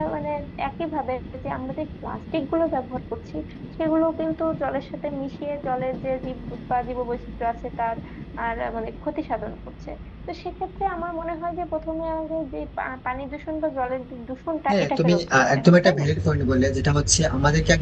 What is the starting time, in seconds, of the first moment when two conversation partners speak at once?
14.7 s

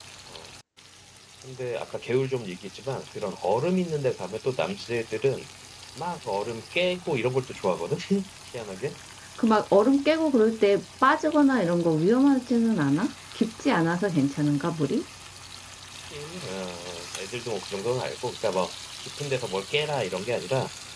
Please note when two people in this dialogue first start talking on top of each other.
none

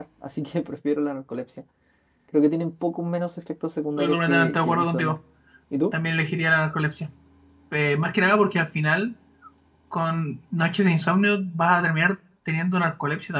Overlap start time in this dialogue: 4.0 s

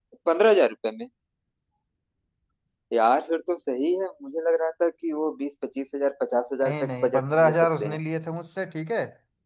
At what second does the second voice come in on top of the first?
6.6 s

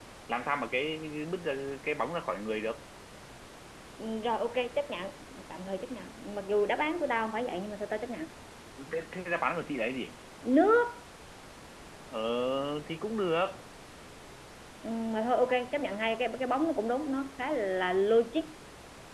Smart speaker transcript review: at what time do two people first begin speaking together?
none

